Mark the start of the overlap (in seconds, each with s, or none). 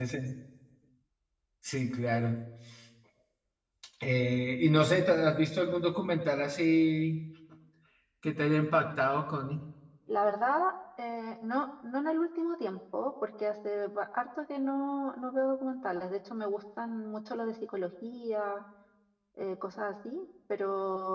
none